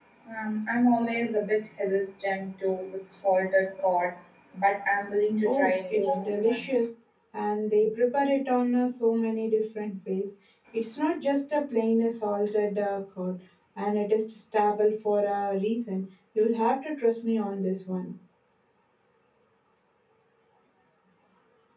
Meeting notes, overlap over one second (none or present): present